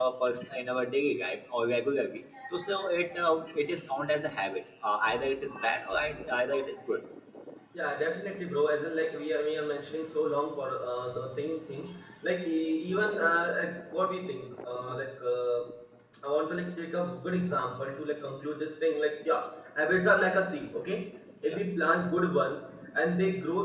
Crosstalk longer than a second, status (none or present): none